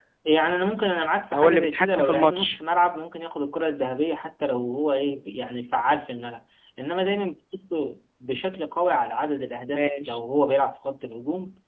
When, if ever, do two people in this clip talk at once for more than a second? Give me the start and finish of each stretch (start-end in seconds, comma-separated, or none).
1.3-2.6